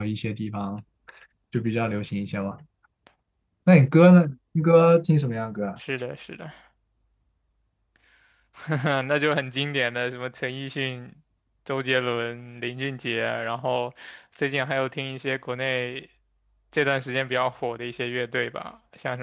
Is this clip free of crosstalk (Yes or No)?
Yes